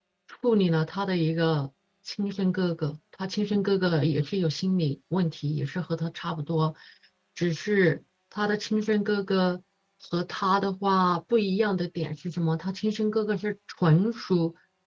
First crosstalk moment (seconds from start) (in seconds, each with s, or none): none